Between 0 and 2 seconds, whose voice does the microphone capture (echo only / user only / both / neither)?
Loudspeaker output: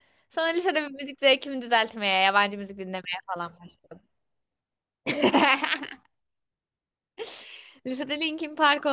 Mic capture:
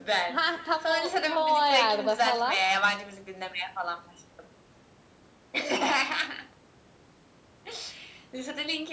both